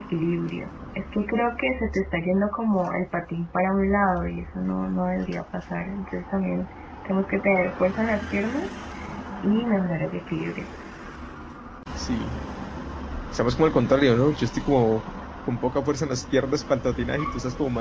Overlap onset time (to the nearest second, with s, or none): none